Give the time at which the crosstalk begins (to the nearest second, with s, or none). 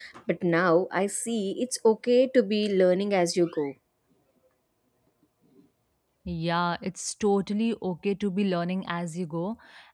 none